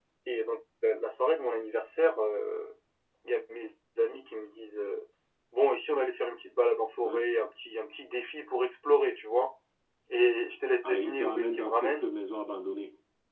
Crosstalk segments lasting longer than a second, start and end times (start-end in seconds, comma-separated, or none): 10.8-12.1